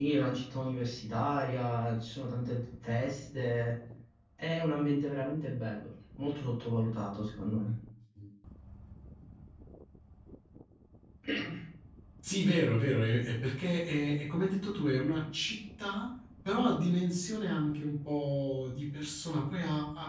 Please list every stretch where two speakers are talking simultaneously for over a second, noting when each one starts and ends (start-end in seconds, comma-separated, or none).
none